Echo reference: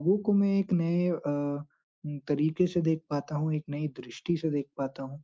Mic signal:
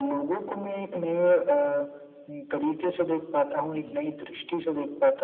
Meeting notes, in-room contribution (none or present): present